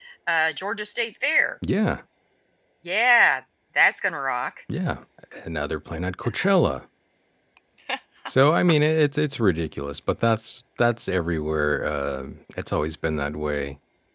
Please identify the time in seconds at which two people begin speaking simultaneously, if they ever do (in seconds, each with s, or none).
none